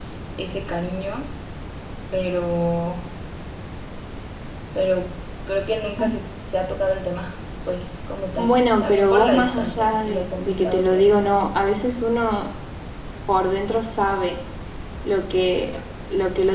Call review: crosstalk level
present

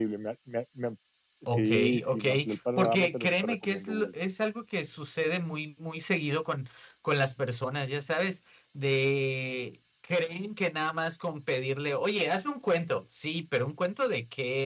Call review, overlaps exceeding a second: present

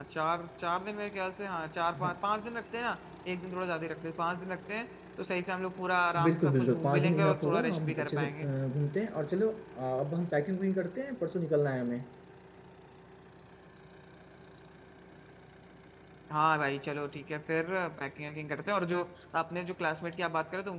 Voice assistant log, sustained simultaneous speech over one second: present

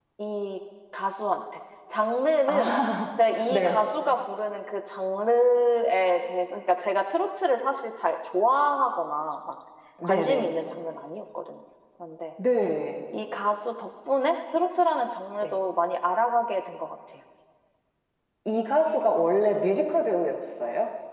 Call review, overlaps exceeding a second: none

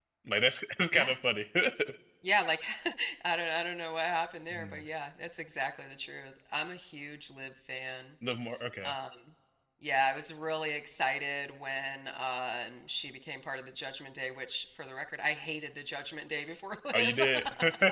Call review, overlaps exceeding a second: none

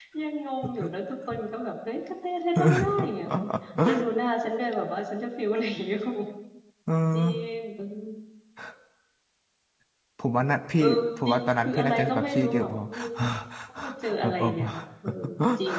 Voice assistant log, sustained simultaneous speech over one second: present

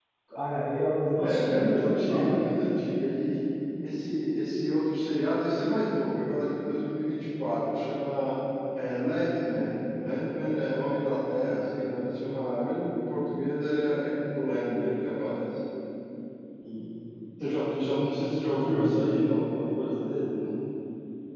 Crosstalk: present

